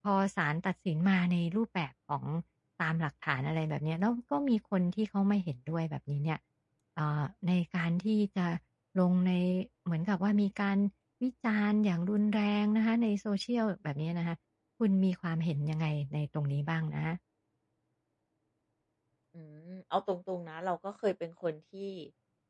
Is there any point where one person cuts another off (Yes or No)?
No